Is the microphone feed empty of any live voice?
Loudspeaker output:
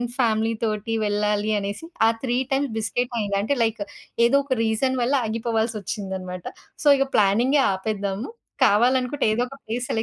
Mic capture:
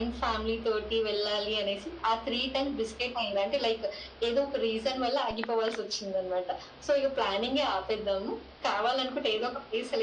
Yes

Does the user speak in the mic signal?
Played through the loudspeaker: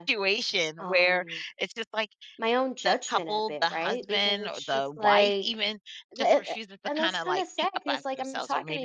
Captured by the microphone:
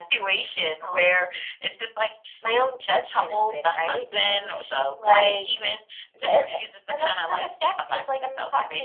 No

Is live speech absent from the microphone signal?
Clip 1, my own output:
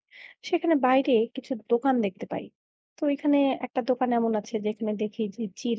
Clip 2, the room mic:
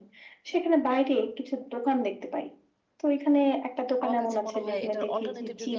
No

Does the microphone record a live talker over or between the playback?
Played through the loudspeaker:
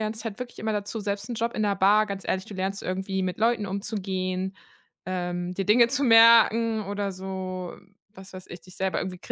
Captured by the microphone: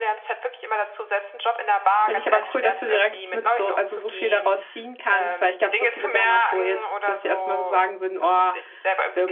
Yes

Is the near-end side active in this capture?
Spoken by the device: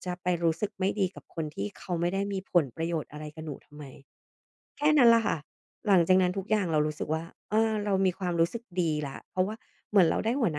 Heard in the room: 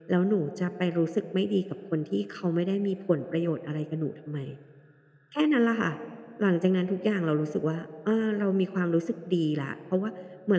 No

